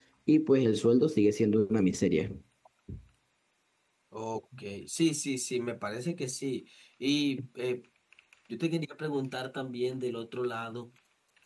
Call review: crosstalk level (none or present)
none